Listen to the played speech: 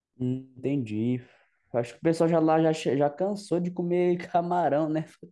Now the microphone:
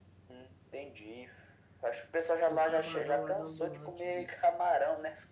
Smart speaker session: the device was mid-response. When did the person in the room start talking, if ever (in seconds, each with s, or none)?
2.5 s